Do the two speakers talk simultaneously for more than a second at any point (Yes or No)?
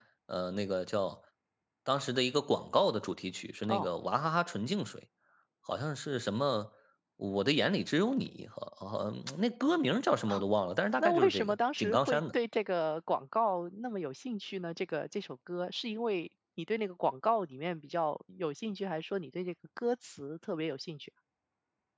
Yes